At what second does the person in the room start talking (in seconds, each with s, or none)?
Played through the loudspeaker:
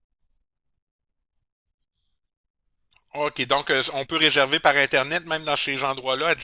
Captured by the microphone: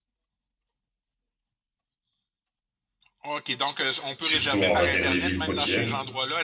4.2 s